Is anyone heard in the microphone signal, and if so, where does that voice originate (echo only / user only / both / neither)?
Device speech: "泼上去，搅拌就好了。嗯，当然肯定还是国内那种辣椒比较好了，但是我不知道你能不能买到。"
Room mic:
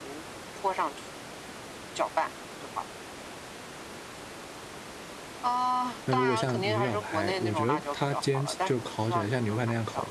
both